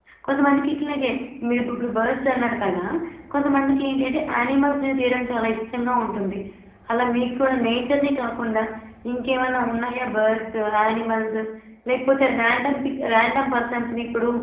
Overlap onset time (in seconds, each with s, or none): none